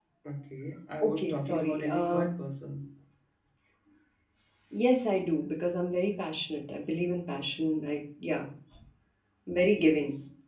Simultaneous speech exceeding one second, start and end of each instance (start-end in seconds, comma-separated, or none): 1.0-2.3